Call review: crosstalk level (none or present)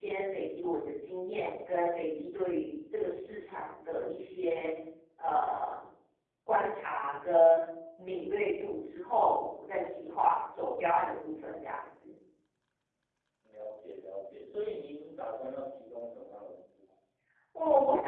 none